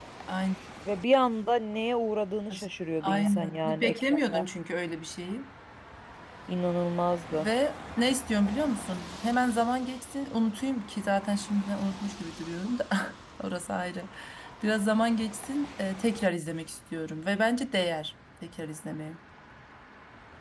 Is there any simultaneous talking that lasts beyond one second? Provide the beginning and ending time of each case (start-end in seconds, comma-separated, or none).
3.0-4.4